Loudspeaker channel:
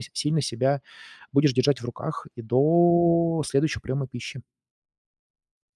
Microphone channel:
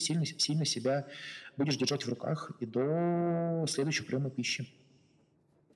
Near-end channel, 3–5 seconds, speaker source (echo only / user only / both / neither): echo only